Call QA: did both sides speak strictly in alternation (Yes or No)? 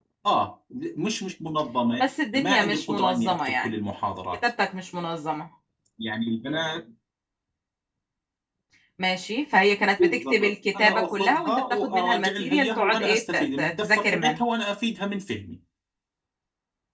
No